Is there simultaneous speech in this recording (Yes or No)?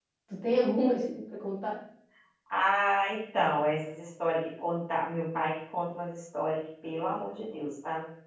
No